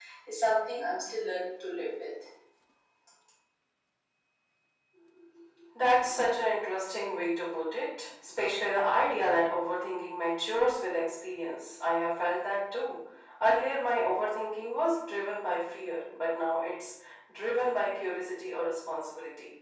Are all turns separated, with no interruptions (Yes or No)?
Yes